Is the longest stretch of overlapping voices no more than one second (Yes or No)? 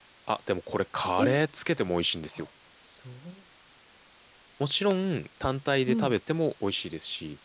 Yes